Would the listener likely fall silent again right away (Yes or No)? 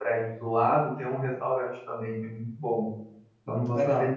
Yes